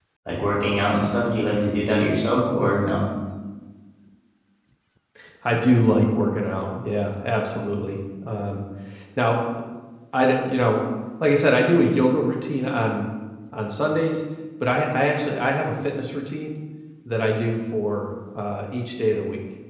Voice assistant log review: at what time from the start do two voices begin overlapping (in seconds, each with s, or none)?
none